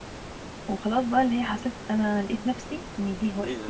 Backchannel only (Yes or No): No